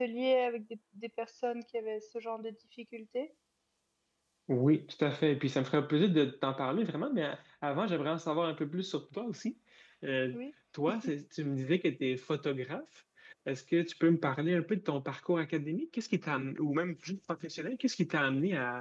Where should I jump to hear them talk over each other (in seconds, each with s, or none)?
none